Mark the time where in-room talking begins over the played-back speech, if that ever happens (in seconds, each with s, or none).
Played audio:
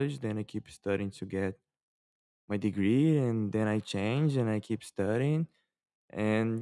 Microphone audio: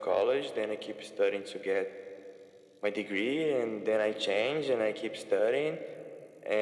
none